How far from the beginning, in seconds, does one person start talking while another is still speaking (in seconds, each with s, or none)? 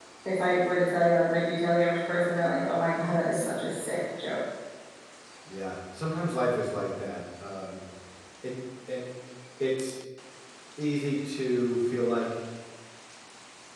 none